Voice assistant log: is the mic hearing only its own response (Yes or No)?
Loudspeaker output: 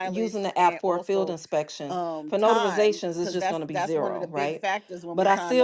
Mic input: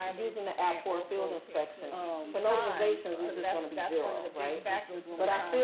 No